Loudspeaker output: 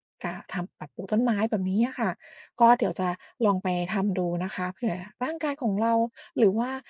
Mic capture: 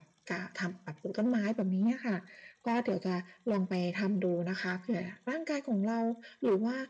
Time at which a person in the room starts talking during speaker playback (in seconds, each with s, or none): none